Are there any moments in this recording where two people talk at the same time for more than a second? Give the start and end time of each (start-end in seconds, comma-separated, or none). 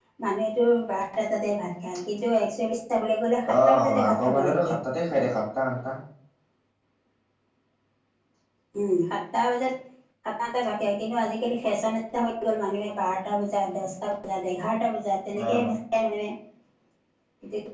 3.5-4.8